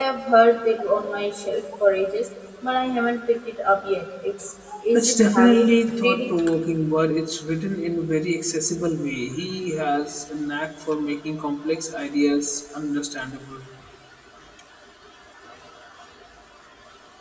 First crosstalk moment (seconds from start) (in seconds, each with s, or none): 4.7 s